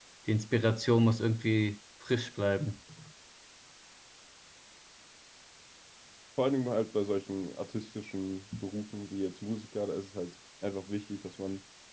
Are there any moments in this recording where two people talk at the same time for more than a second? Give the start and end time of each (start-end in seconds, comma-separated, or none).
none